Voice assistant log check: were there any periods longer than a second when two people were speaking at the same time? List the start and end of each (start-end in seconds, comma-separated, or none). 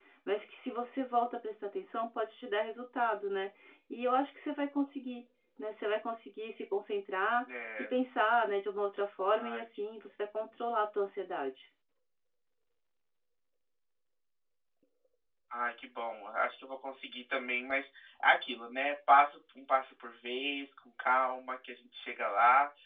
none